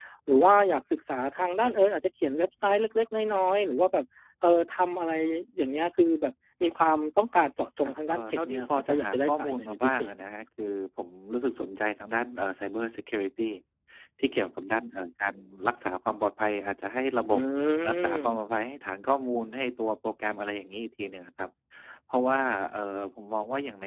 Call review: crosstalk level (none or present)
present